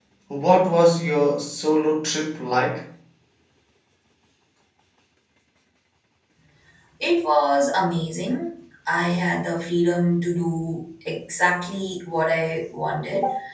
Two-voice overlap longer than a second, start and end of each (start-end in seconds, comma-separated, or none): none